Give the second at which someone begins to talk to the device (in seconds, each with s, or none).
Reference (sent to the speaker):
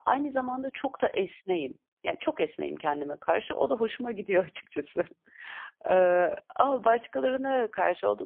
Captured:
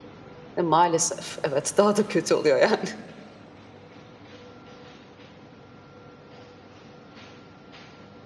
0.6 s